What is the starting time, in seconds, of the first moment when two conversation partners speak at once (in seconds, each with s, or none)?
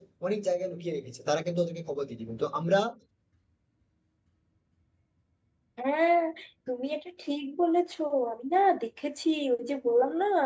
none